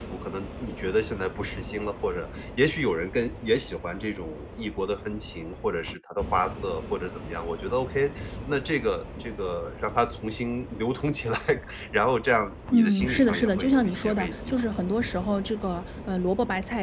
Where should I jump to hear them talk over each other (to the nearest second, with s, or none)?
13 s